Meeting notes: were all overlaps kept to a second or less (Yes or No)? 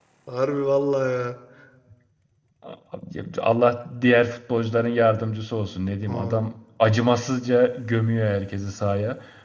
Yes